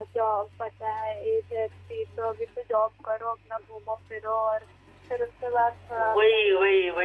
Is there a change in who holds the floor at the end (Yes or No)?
Yes